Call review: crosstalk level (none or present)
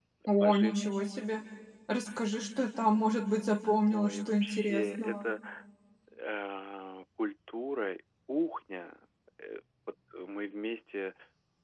present